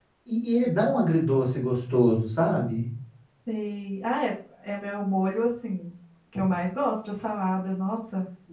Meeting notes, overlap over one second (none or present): none